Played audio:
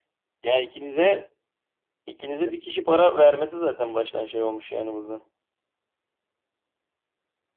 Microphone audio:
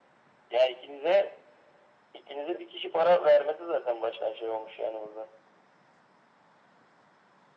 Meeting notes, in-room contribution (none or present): none